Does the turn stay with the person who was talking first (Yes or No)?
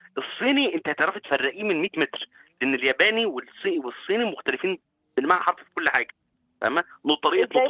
Yes